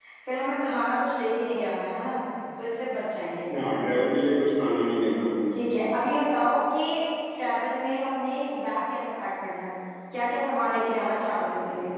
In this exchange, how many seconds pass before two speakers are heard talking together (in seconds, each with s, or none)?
none